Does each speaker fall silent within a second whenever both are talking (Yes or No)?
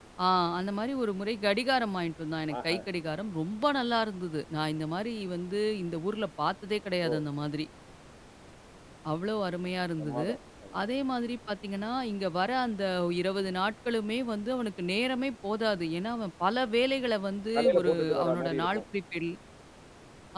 No